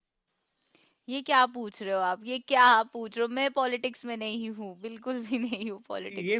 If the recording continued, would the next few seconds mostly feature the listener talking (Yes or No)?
Yes